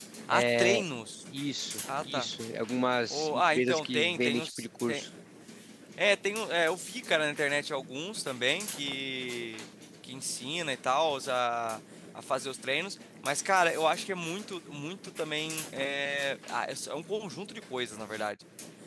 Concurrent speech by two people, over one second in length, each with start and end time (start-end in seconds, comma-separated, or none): 3.1-4.6